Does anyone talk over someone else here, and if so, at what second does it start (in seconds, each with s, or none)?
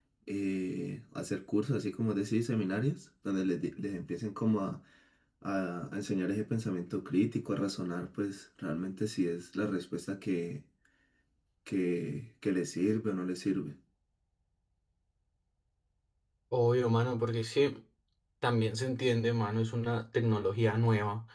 none